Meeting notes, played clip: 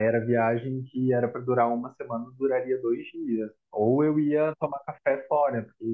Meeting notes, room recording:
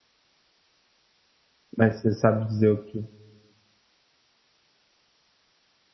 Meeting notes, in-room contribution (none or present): present